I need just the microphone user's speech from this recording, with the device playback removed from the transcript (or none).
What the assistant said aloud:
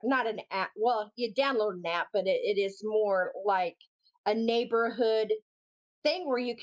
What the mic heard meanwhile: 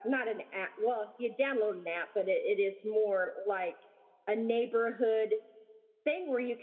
none